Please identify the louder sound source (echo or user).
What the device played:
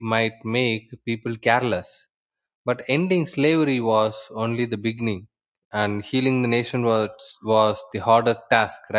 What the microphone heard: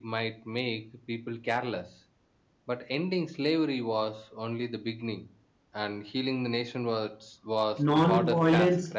user